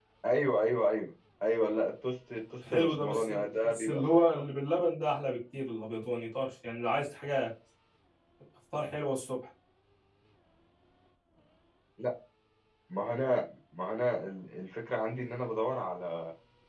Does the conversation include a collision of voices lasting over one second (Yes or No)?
Yes